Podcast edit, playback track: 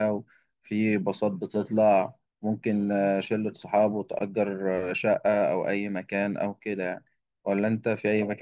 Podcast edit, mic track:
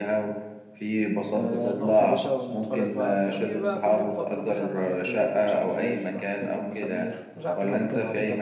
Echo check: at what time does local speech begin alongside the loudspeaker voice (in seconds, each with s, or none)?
1.4 s